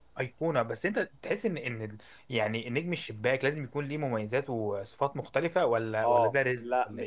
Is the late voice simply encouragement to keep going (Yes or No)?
No